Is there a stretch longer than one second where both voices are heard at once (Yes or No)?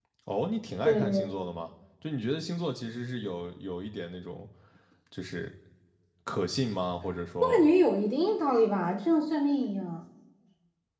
No